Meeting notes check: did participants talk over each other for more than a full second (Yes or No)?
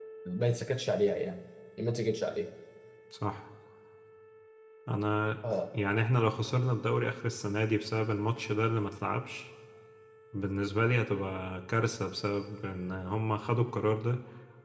No